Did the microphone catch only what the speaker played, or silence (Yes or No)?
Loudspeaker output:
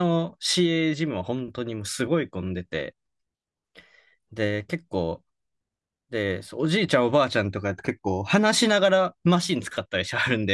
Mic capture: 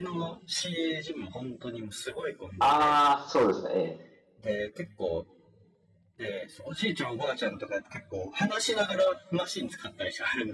No